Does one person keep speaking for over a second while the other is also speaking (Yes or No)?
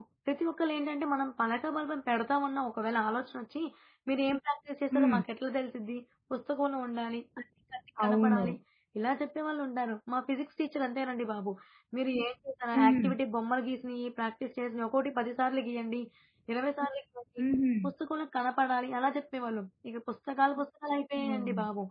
No